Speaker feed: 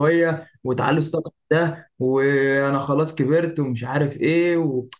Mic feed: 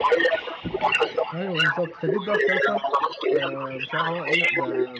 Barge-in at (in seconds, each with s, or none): 1.3 s